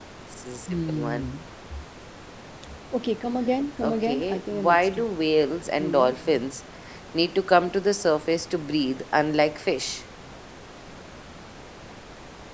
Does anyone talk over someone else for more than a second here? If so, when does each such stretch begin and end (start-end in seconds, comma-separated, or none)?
3.8-5.1